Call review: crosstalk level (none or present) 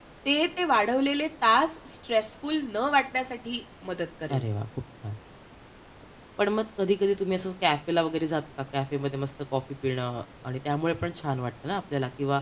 none